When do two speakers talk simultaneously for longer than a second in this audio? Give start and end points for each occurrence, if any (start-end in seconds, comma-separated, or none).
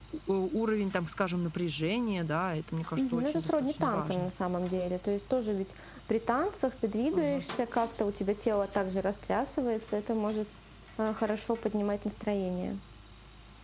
3.0-4.3